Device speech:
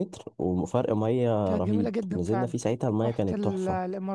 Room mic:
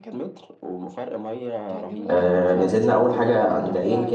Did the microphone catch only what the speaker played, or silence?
No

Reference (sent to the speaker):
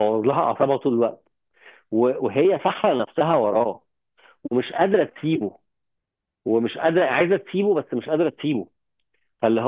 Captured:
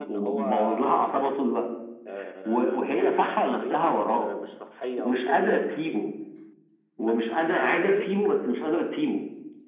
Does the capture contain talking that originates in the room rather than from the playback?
Yes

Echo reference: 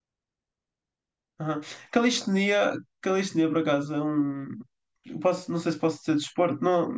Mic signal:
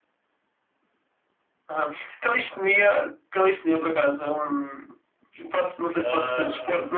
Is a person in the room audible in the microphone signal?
Yes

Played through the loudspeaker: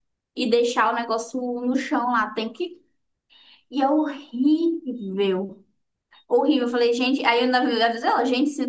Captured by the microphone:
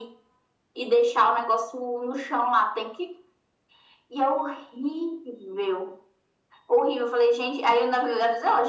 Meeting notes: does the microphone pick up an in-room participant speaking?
No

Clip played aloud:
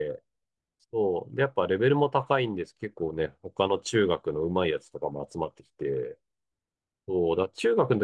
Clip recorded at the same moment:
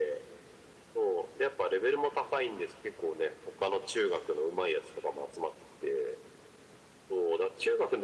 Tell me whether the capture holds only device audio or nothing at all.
Yes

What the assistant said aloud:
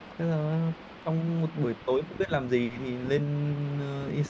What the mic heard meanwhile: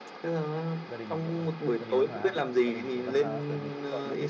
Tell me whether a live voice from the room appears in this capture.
Yes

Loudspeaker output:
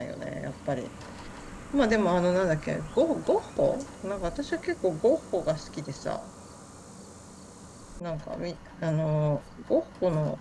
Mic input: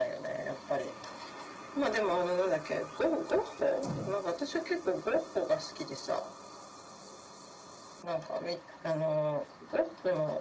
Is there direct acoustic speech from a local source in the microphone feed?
Yes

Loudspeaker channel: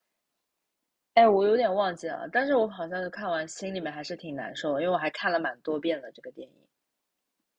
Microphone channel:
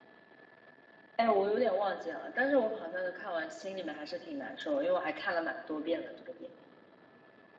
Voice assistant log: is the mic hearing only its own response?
Yes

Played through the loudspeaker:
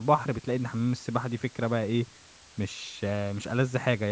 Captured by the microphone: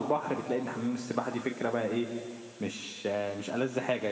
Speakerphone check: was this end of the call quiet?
Yes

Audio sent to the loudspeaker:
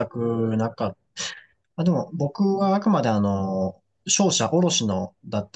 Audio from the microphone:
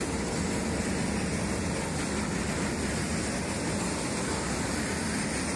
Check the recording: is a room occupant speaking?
No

